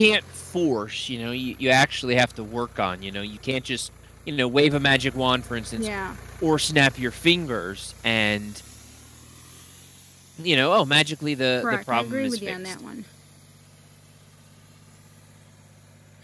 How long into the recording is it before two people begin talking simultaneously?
11.5 s

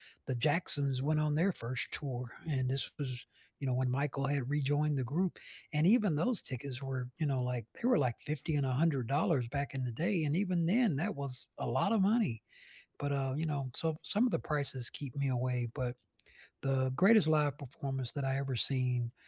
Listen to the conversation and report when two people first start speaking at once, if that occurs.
none

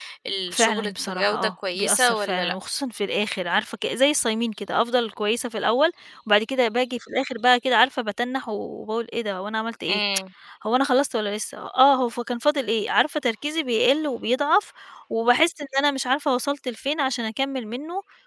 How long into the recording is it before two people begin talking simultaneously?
0.5 s

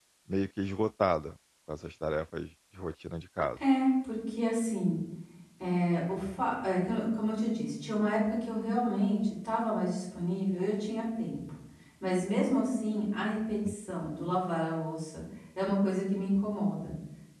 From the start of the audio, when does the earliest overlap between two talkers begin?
none

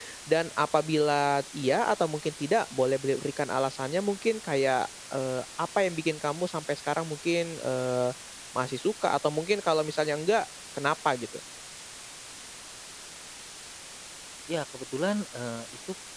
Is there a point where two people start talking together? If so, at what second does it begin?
none

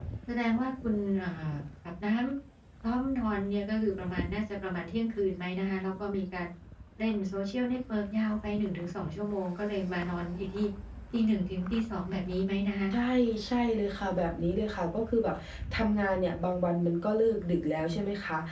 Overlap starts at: none

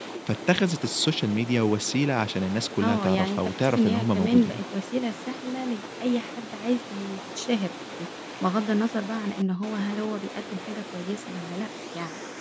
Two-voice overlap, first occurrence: 2.8 s

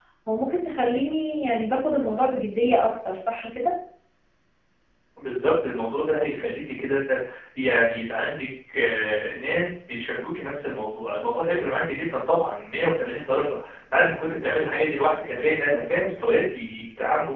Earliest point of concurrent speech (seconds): none

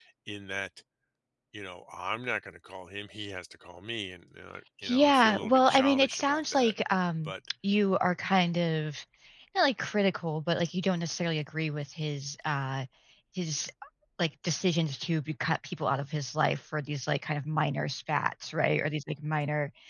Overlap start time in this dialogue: 4.8 s

